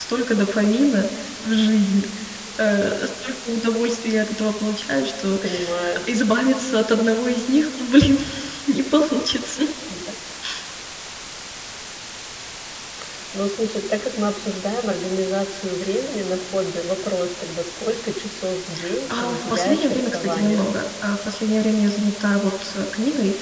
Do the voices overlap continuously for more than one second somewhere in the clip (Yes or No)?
Yes